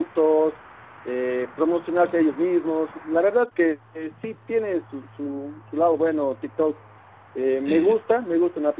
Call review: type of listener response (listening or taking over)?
listening